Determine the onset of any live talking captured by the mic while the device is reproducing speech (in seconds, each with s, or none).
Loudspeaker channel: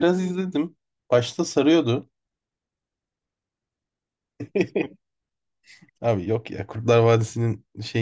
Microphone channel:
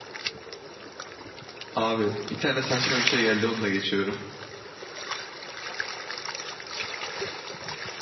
1.8 s